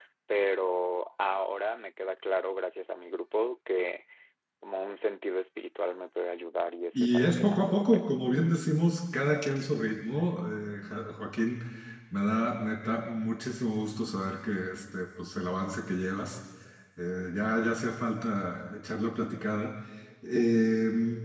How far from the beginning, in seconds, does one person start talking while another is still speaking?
7.0 s

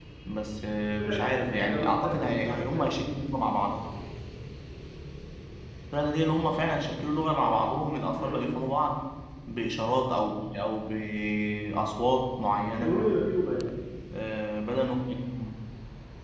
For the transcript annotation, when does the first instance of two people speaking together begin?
1.0 s

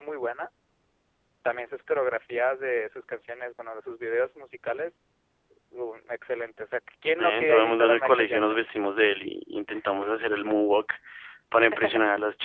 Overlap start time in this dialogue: 7.2 s

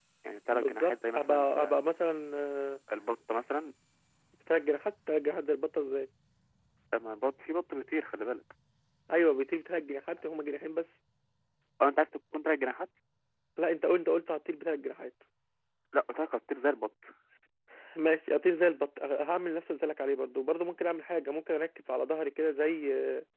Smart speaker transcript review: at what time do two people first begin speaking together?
0.5 s

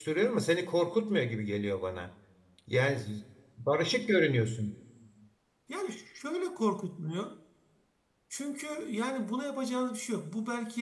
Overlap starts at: none

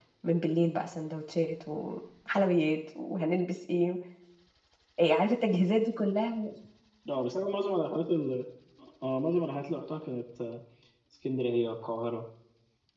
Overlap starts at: none

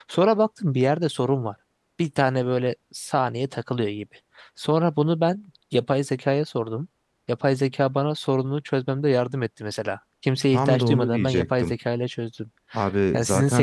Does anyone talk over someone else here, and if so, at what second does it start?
10.5 s

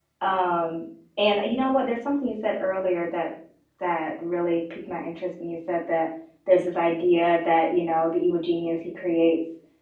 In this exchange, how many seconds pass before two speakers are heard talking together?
none

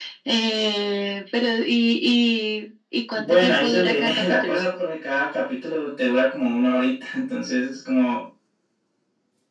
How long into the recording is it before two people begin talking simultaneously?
3.1 s

